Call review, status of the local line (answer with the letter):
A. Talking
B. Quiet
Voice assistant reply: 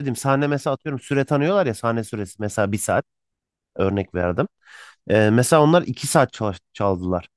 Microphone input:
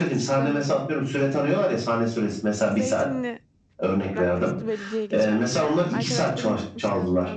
A